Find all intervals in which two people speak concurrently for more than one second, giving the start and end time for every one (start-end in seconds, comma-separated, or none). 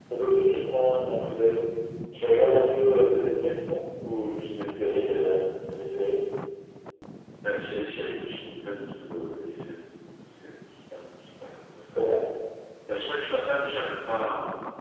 none